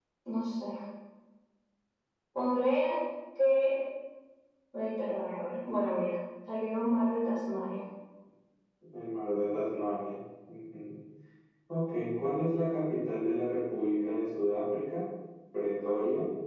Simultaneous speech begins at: none

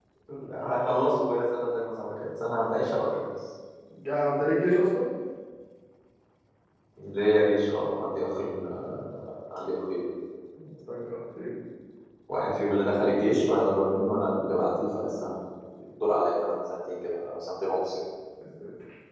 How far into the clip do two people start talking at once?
none

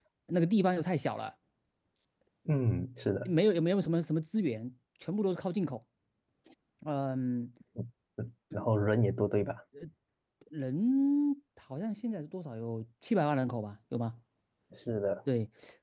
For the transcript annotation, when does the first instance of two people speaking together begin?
none

